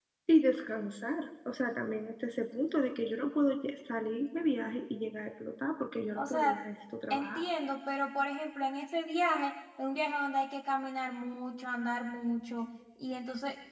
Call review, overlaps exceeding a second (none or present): none